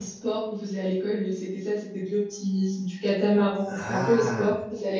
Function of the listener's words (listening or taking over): listening